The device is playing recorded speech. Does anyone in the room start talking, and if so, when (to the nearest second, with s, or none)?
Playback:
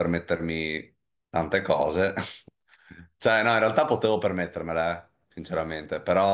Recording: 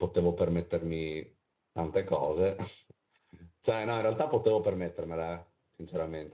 none